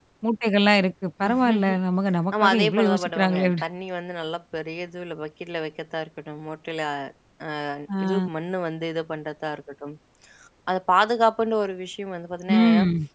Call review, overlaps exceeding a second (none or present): present